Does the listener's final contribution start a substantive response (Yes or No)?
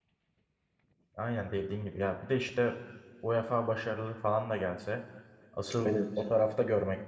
No